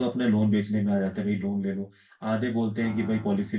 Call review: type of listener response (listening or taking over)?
listening